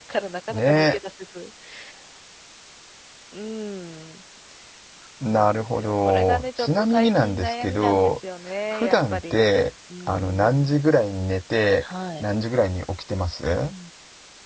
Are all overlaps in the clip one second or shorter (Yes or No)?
No